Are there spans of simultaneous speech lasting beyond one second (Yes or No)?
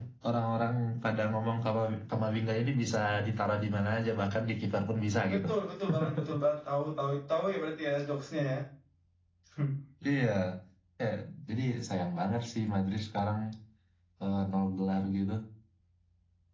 No